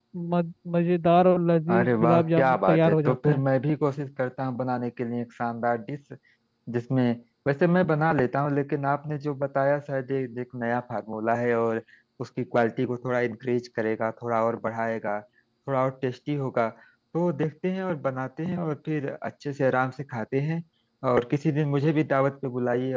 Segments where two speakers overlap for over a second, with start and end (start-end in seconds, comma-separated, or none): 1.7-3.4